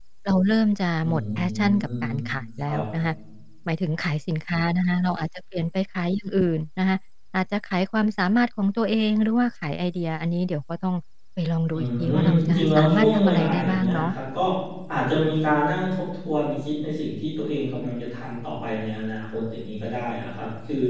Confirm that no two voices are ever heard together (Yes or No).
No